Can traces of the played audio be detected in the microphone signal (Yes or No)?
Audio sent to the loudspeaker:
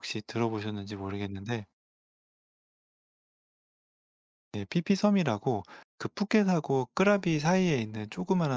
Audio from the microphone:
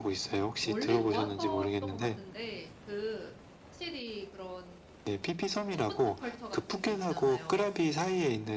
Yes